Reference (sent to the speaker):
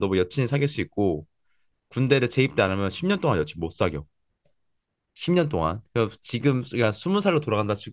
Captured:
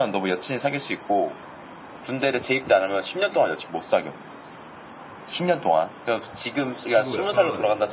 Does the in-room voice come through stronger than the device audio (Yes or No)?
No